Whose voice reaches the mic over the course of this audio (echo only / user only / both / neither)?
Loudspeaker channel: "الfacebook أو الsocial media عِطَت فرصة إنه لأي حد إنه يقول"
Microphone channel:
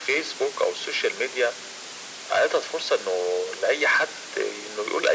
echo only